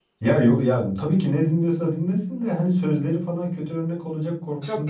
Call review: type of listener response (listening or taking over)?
listening